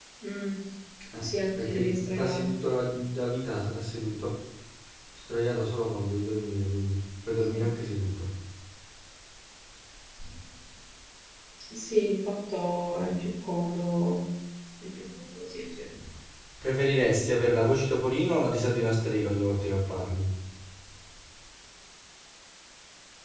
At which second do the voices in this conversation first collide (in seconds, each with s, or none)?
1.2 s